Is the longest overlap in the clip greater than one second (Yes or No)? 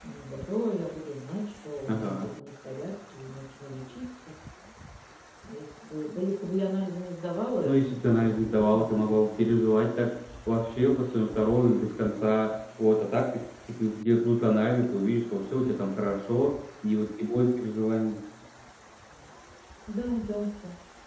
Yes